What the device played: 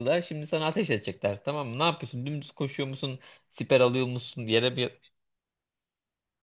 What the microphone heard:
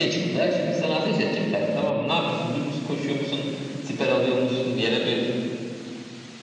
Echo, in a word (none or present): present